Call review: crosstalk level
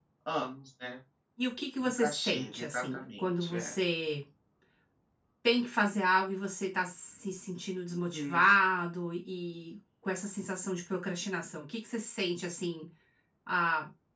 present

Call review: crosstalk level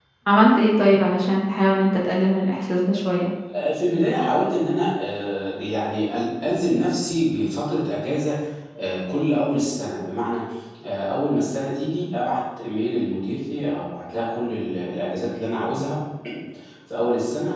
none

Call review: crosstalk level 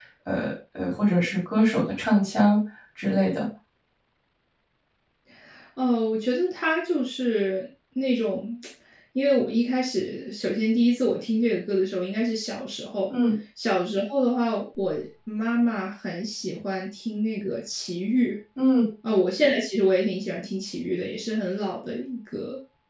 none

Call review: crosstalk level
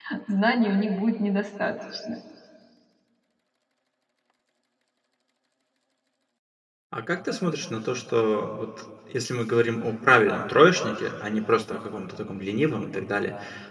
none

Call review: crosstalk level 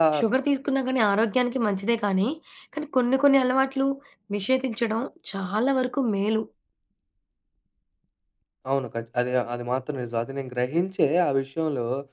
none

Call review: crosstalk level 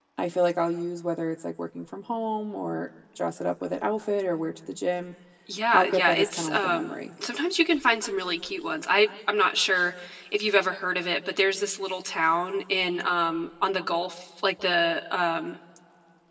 present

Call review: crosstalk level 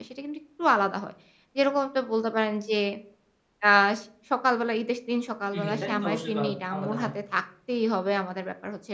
present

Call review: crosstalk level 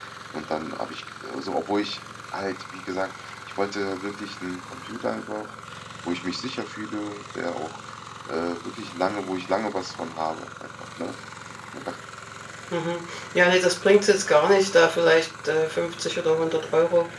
none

